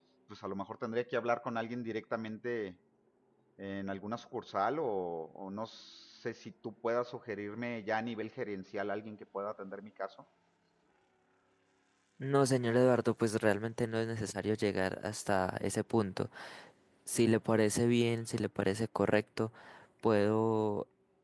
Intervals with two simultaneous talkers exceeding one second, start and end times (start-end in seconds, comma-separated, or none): none